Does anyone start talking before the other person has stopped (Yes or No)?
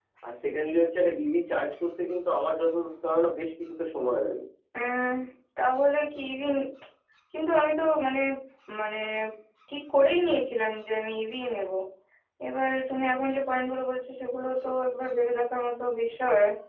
No